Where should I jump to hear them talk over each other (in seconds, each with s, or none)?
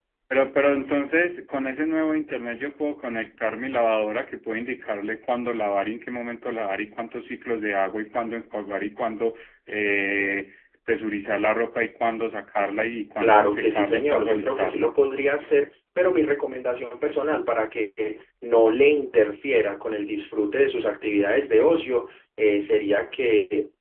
13.2 s